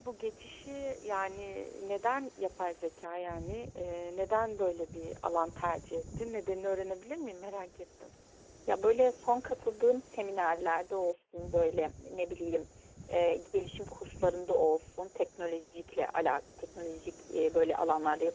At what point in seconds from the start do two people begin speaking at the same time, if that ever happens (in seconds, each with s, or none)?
none